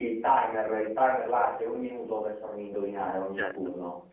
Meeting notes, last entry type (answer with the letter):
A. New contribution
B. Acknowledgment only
A